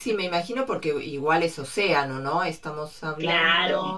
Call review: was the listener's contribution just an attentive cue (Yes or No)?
Yes